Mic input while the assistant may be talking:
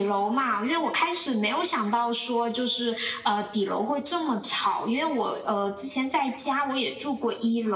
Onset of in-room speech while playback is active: none

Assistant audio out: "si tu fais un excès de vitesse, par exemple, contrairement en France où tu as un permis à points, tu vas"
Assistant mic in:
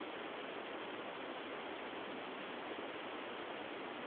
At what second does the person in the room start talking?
none

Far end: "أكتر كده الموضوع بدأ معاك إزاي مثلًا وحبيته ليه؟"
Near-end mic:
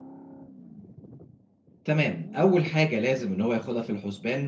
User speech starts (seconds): 1.8 s

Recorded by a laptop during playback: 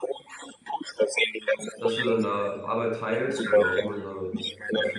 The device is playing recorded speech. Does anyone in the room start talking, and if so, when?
1.8 s

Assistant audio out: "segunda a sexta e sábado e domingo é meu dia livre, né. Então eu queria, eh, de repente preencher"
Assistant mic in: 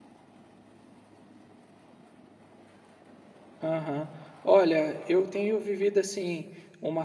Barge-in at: 3.6 s

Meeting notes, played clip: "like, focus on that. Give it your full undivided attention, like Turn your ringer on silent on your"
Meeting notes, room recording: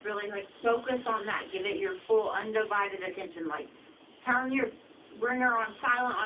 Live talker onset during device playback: none

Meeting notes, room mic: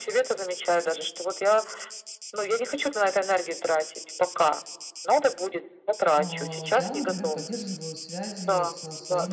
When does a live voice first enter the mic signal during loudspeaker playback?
6.2 s

